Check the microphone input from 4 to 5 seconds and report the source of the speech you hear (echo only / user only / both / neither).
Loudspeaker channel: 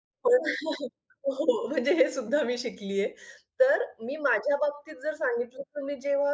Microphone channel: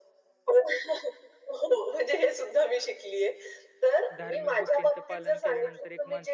both